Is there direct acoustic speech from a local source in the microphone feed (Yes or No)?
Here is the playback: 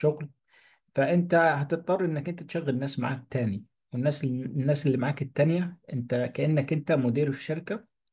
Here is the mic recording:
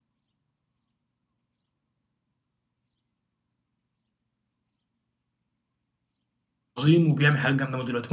Yes